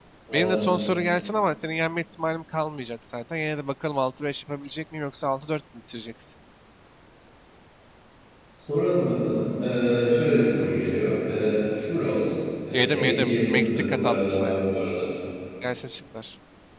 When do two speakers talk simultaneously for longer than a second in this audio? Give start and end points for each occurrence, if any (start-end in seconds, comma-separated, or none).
12.7-14.6